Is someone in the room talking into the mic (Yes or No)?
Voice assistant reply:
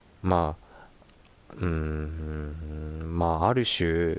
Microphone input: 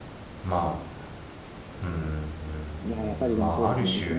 Yes